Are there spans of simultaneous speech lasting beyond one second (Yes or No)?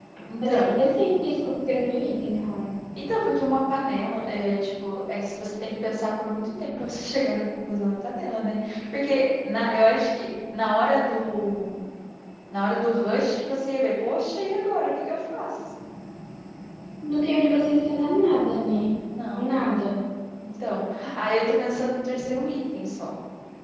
No